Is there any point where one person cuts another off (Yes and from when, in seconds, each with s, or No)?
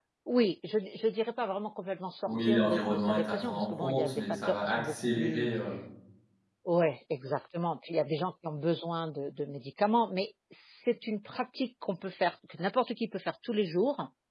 Yes, from 2.3 s